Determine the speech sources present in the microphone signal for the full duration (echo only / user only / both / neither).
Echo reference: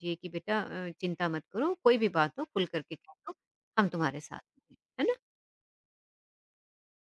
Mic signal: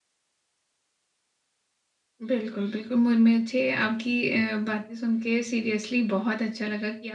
user only